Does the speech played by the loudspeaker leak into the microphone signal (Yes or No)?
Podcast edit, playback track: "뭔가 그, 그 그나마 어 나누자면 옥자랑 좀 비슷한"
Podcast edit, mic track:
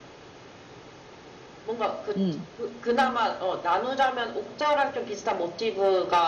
Yes